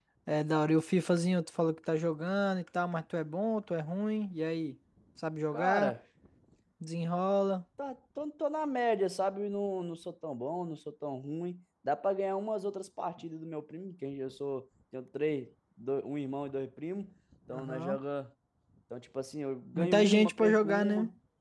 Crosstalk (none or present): present